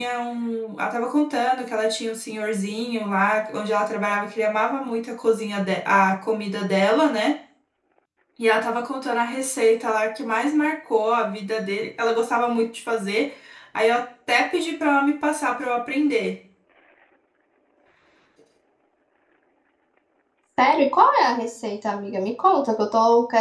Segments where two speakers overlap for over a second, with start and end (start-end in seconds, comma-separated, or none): none